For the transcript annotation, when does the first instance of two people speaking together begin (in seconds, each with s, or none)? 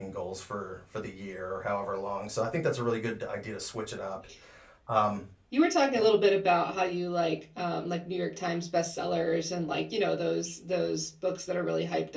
none